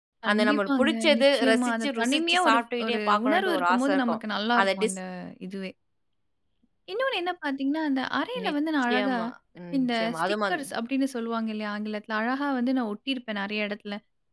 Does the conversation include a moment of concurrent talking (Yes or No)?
Yes